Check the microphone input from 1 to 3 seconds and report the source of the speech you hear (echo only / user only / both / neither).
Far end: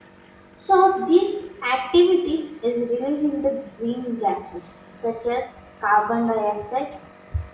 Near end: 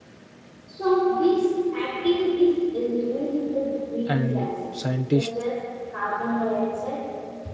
echo only